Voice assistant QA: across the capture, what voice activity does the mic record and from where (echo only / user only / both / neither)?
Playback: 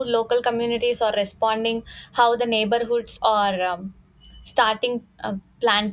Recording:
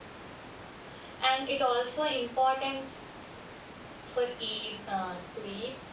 user only